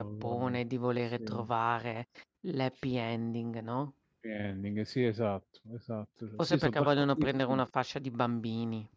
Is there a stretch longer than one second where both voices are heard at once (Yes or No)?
Yes